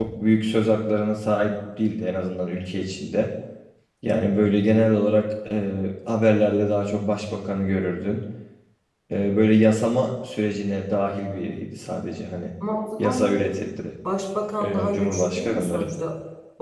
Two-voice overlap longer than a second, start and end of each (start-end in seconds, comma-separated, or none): 14.6-15.8